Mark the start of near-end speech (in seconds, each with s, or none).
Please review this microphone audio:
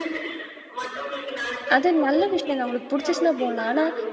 1.8 s